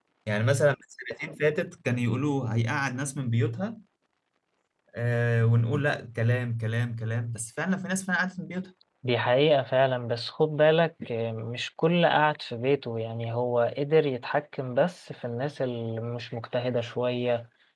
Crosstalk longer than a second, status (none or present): none